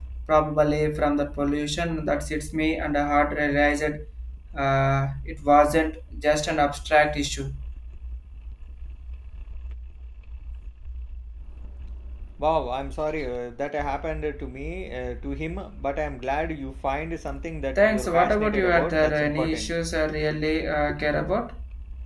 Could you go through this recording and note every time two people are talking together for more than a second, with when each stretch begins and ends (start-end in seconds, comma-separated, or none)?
17.8-19.7